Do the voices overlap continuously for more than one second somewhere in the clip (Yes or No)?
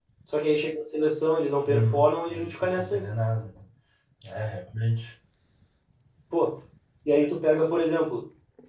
Yes